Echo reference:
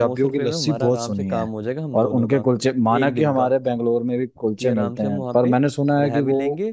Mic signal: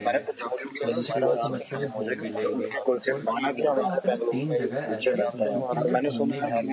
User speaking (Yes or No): Yes